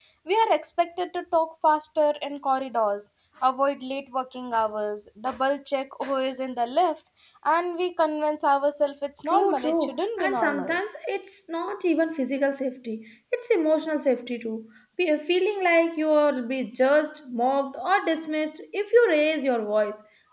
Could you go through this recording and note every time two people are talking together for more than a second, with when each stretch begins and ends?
9.2-10.8

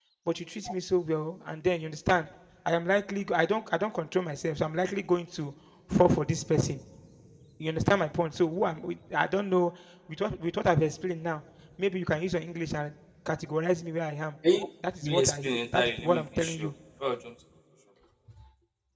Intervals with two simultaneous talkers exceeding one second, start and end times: 15.0-16.7

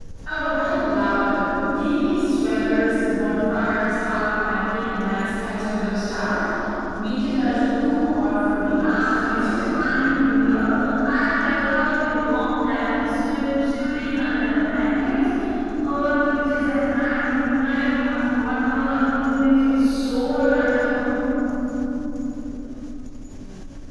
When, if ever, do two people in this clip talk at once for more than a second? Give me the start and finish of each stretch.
8.7-10.1

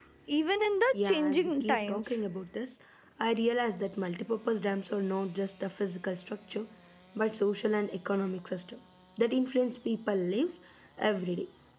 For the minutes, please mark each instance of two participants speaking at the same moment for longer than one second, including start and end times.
0.9-2.2

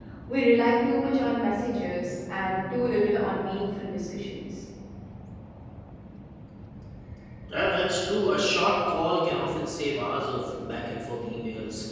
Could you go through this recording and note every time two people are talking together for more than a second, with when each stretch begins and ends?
none

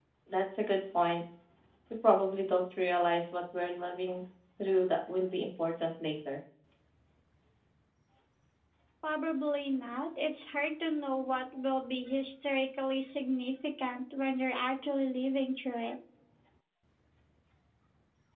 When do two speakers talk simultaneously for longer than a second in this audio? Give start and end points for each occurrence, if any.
none

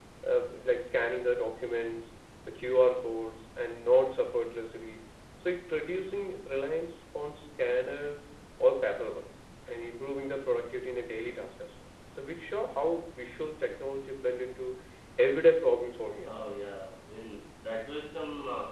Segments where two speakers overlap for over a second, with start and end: none

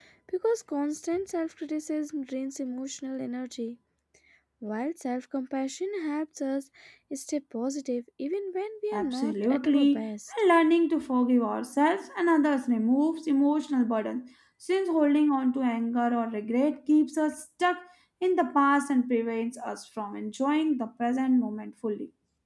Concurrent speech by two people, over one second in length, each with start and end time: 8.9-10.3

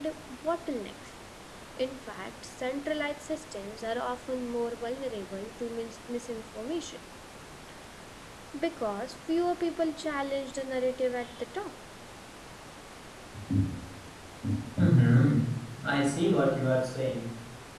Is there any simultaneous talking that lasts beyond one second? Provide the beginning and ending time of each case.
none

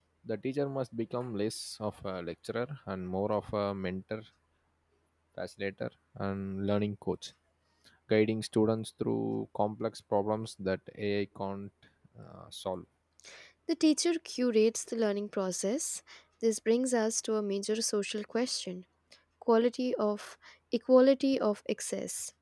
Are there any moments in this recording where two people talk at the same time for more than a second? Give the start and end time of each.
none

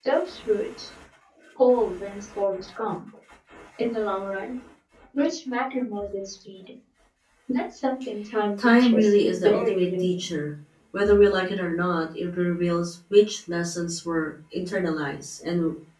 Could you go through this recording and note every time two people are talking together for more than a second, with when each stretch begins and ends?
8.6-10.3

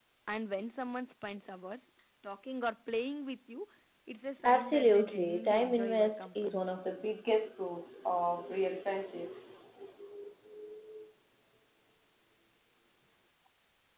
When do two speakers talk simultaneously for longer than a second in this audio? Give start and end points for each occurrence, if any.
4.4-6.6

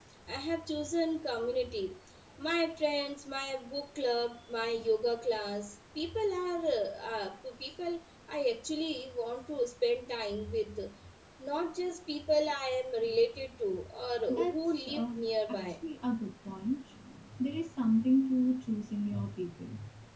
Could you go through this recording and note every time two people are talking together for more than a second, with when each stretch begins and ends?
14.3-15.8

